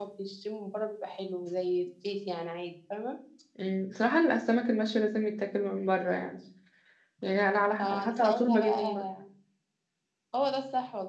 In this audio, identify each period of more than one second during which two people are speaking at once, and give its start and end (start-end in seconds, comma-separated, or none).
7.8-9.0